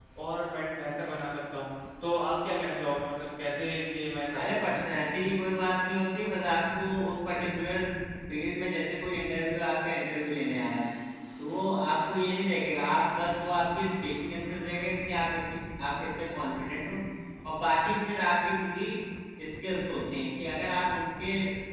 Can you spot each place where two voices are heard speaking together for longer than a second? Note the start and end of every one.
none

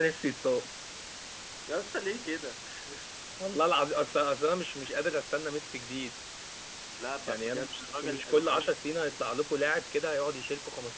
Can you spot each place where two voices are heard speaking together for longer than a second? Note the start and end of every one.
7.3-8.7

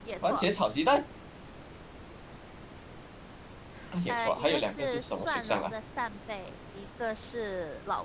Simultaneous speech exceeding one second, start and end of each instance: 4.1-5.7

